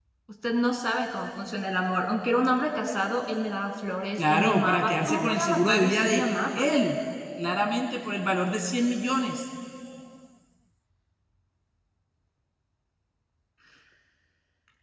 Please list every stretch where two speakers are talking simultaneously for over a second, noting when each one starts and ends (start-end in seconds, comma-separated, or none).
4.2-6.6